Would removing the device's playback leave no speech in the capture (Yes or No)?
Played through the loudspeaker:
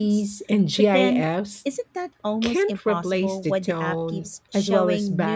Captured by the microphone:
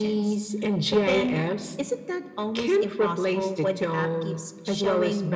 Yes